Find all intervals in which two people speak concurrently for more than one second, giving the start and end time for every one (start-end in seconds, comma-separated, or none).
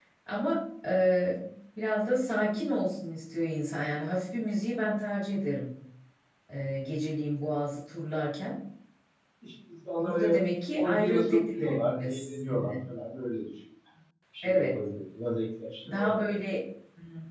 10.8-12.8